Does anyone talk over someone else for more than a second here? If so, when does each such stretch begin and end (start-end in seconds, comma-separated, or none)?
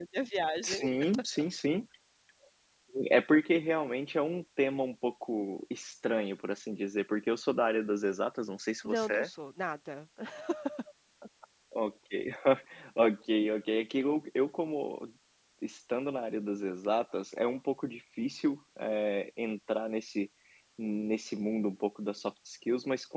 none